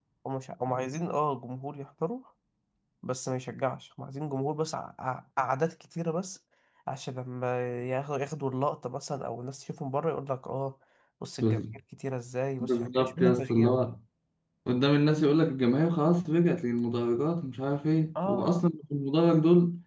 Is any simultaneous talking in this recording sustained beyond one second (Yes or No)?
Yes